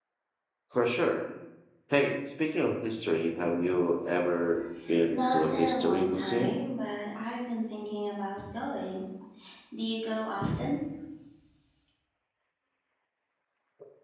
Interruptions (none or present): present